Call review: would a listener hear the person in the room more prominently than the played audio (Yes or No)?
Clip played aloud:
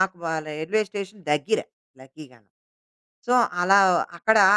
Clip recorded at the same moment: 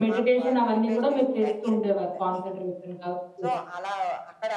Yes